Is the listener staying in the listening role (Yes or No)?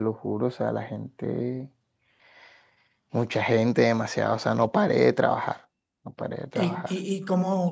No